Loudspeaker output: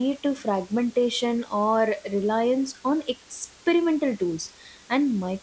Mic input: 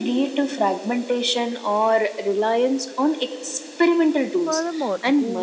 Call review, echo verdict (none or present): present